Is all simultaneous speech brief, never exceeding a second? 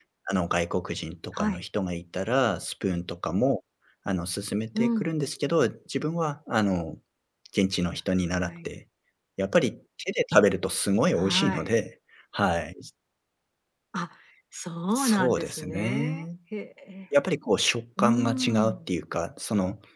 No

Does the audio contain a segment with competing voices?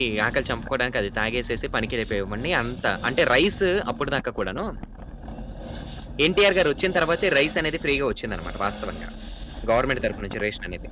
No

